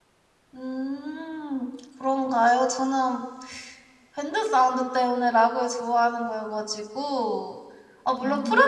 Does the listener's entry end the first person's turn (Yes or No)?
No